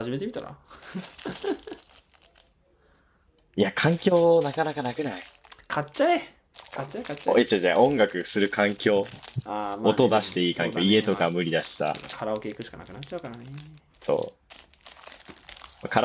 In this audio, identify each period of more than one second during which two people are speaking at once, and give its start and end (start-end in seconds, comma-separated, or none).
9.8-11.3